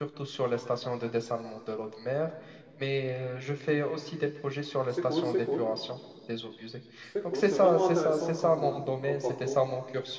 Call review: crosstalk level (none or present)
present